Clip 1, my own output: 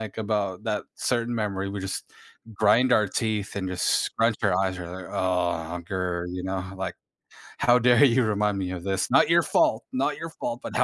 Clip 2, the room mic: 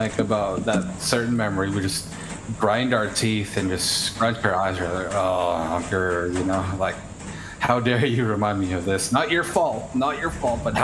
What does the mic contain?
echo only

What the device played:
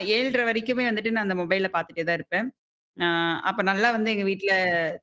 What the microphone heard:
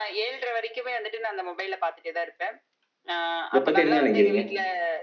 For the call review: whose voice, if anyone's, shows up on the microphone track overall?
both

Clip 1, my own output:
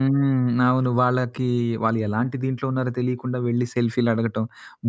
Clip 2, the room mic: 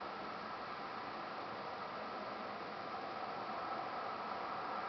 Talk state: neither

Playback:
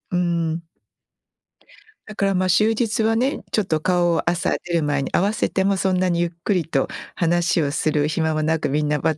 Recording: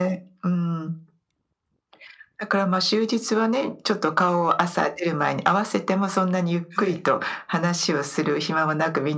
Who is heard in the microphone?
both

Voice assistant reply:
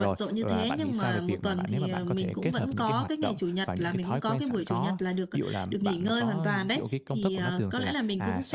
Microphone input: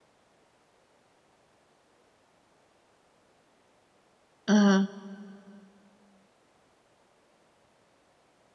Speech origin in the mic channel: user only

